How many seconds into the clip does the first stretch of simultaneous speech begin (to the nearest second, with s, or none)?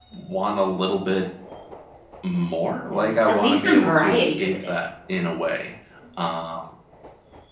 3 s